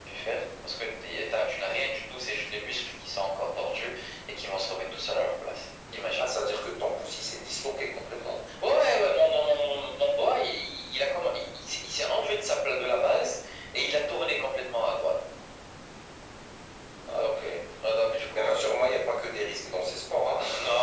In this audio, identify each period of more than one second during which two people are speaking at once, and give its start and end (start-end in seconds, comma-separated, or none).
none